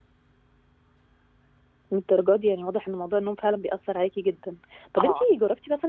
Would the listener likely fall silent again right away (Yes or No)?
Yes